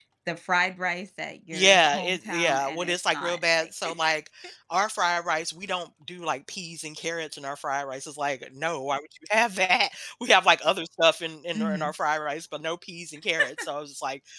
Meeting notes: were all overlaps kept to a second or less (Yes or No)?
No